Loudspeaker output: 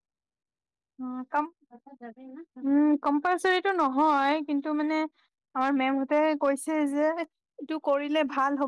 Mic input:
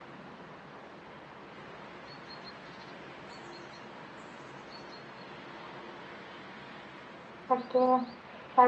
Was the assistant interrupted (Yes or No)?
Yes